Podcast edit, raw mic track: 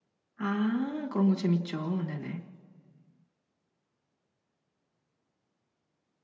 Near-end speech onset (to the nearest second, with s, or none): 0 s